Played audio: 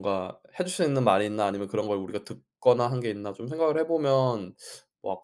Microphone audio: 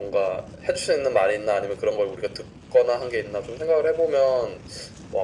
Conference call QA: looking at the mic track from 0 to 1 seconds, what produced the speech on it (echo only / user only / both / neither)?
echo only